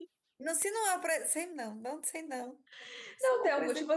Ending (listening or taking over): taking over